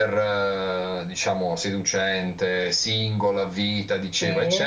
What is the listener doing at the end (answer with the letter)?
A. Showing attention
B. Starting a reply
A